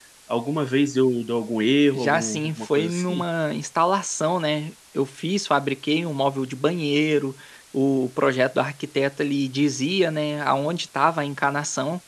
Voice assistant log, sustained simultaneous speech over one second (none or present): present